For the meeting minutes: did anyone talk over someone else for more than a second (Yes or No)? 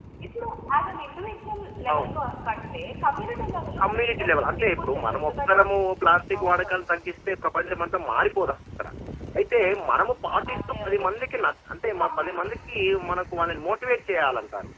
Yes